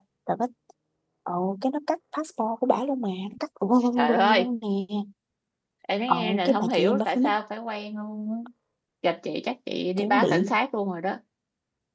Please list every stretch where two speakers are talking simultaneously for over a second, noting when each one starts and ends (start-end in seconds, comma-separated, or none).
6.1-7.3